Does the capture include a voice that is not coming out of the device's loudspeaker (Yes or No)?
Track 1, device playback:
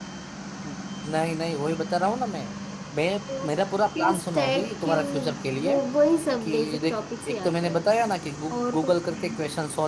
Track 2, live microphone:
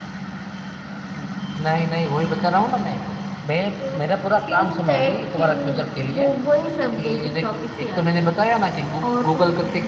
No